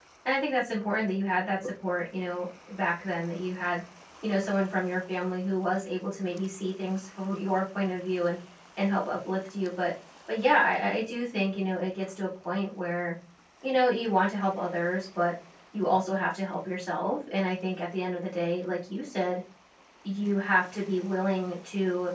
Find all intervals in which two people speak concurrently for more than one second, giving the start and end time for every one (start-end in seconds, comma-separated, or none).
none